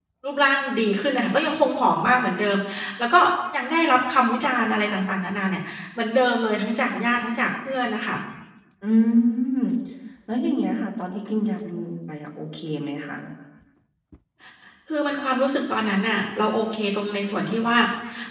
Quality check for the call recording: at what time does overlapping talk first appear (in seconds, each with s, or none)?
none